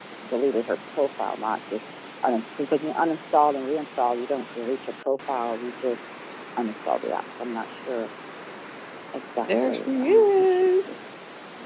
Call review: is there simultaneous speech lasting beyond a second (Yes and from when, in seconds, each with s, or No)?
Yes, from 9.5 s